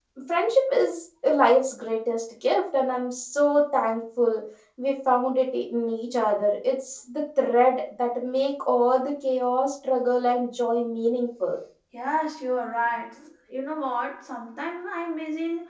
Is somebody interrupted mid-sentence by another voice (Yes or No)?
No